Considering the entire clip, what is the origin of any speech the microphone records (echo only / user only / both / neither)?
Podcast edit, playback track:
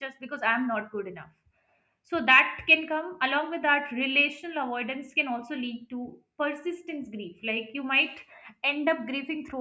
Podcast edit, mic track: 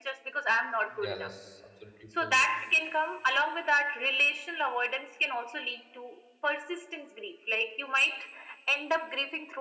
both